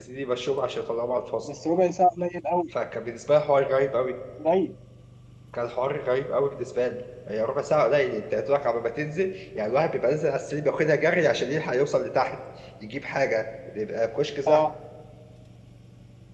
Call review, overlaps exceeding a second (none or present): none